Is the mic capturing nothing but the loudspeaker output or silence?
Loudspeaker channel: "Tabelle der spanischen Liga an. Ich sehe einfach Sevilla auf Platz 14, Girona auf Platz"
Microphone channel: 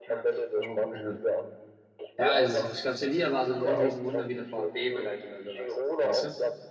No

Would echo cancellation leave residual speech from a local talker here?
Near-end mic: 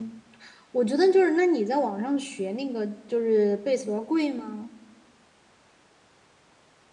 Yes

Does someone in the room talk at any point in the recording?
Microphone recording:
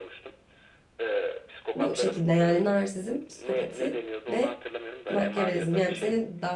Yes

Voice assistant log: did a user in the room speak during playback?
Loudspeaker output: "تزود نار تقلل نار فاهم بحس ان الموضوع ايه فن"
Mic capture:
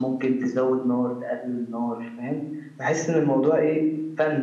No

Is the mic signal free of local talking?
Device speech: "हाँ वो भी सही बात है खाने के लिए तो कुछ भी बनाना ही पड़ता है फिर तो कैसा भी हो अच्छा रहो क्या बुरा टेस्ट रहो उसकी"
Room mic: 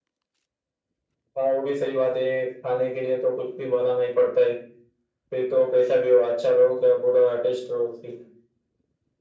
Yes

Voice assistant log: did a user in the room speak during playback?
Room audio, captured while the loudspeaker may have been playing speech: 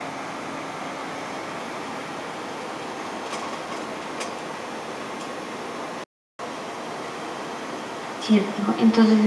Yes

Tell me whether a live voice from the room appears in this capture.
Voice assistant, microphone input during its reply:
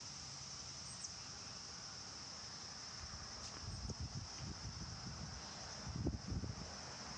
No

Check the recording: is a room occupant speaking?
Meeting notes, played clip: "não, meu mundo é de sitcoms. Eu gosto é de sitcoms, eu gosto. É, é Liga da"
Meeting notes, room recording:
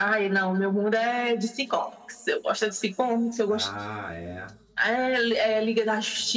Yes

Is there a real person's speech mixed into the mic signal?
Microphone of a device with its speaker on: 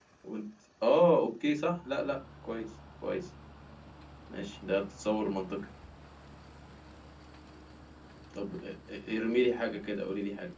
Yes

